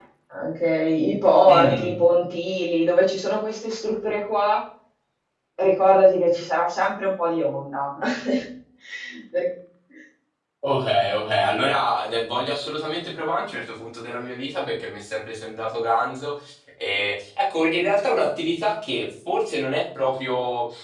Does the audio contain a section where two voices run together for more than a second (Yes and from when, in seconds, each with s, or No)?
No